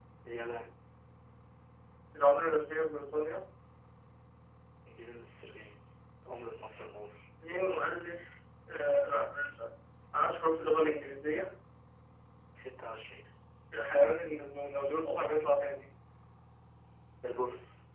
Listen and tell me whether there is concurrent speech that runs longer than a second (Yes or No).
No